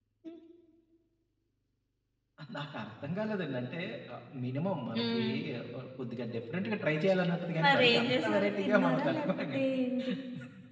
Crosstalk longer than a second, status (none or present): present